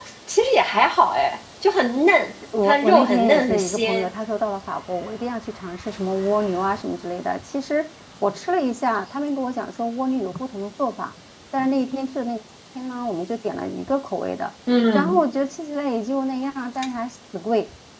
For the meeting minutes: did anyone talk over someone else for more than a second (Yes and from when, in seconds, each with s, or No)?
Yes, from 2.6 s